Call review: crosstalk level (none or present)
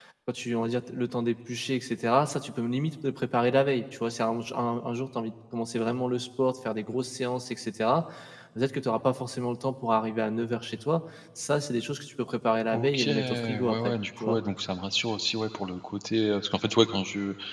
present